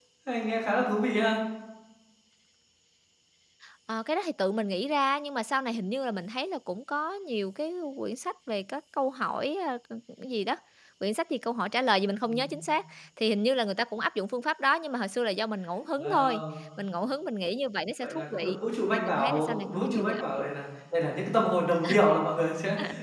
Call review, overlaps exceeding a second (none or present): present